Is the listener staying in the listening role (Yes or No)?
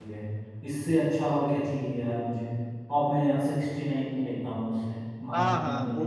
No